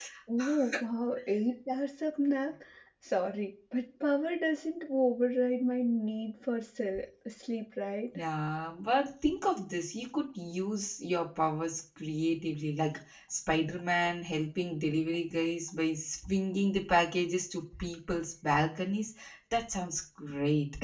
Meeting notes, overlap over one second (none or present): none